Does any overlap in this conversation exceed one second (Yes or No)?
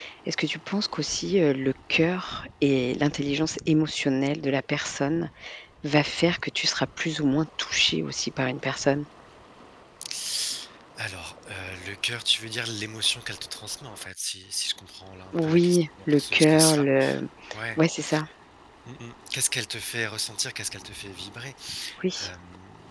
Yes